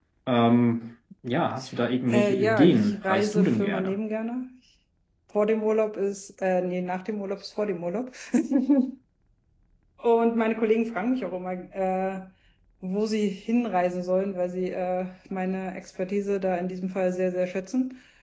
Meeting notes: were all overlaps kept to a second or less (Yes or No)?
No